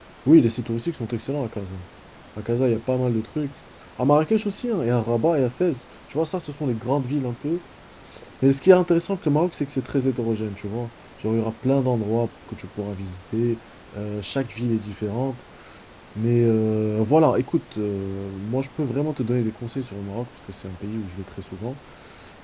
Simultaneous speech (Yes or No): No